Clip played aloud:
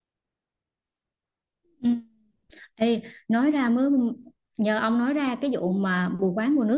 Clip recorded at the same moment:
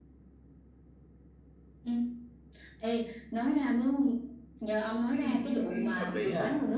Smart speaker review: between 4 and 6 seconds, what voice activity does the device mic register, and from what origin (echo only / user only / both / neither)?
both